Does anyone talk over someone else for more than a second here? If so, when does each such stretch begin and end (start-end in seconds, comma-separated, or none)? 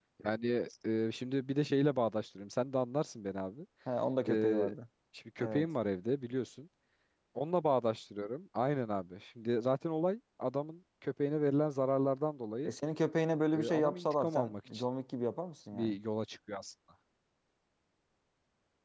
13.5-14.8